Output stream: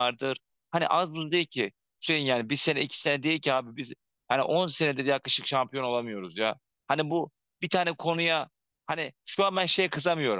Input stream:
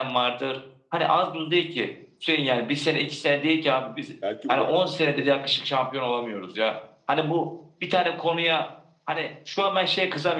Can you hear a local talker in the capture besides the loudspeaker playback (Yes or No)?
Yes